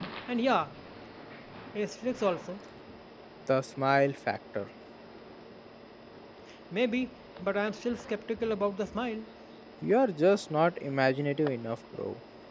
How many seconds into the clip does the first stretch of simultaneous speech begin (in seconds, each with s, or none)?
none